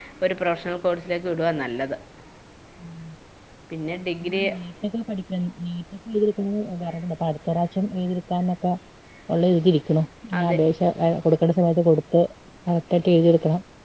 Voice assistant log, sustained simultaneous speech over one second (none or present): none